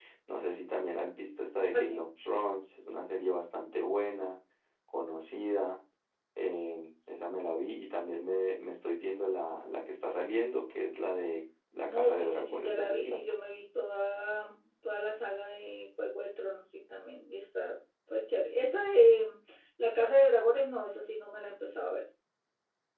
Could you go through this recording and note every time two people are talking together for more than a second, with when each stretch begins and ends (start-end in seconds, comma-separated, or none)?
11.9-13.2